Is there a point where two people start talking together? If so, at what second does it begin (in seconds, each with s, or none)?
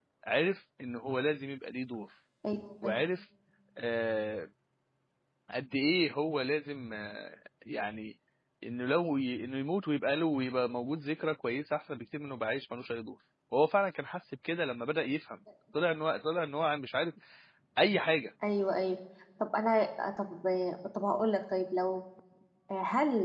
none